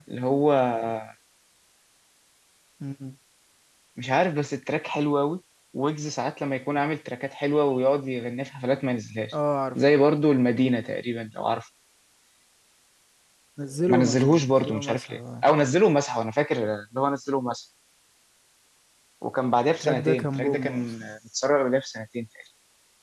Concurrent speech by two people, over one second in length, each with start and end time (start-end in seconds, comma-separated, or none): 13.9-15.2, 19.8-21.1